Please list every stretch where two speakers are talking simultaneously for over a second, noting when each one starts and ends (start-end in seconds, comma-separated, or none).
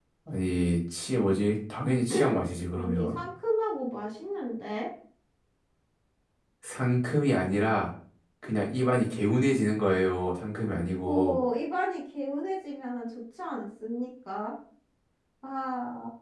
none